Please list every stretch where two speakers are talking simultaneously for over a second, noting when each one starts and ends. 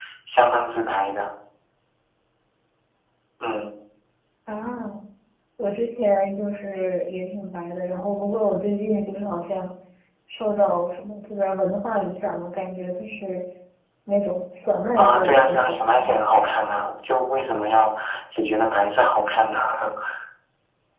15.0-16.2

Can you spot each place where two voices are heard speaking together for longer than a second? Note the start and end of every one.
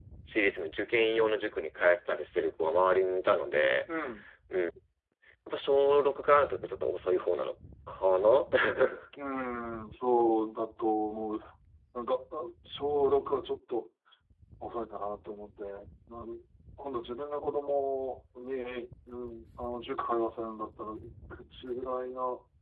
none

